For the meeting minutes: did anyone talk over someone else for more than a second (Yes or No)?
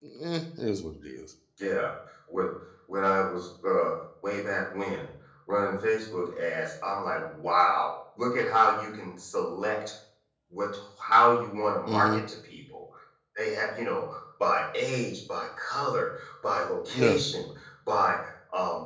No